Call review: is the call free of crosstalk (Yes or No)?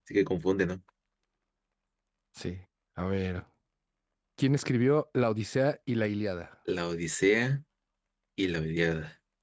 Yes